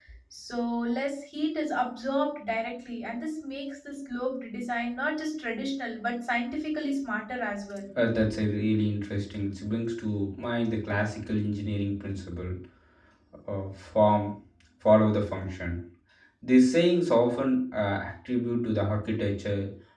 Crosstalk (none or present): none